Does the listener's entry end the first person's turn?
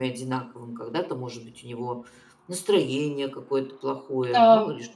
No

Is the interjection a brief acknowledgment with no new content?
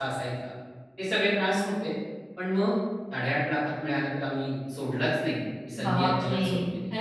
No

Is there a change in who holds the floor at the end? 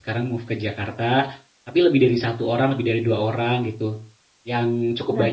No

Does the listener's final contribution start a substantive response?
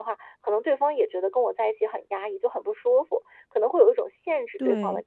Yes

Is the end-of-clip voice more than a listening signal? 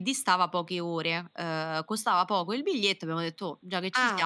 Yes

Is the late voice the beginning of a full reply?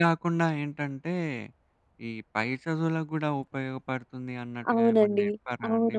Yes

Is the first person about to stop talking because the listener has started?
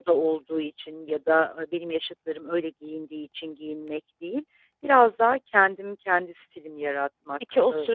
Yes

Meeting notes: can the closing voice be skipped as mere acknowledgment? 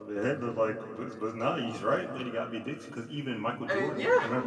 Yes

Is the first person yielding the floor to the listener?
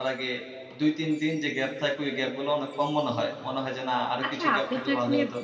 Yes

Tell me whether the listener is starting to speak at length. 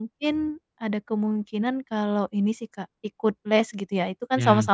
No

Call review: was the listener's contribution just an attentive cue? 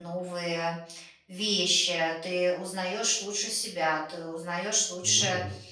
Yes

